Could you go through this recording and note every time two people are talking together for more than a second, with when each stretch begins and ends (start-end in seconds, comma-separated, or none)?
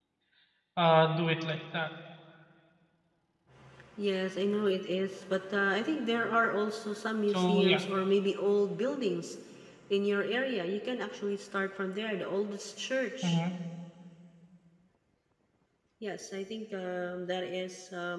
none